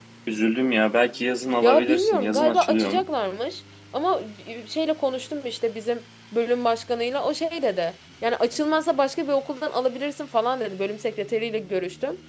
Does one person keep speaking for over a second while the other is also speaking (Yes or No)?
Yes